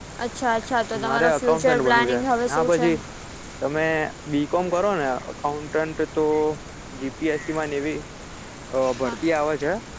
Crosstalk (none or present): present